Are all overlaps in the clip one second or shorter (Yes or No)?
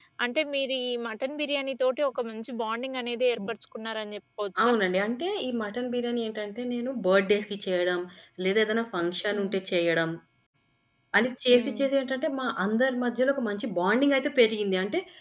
Yes